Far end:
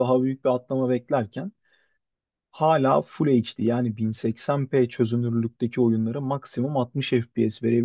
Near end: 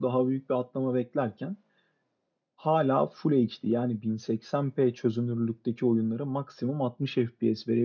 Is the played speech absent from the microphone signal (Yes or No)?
No